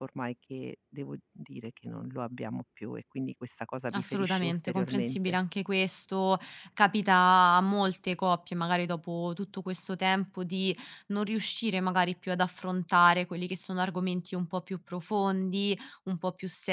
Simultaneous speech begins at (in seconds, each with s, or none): 3.9 s